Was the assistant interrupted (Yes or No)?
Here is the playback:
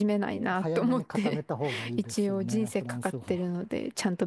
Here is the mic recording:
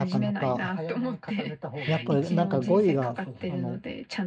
Yes